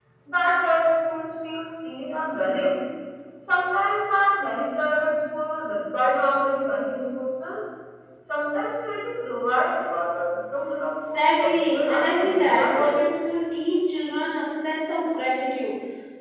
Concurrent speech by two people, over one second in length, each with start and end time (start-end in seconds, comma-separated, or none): 11.1-12.9